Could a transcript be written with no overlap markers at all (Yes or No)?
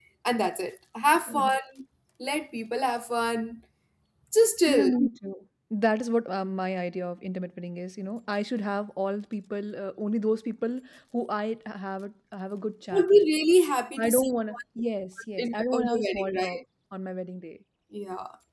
No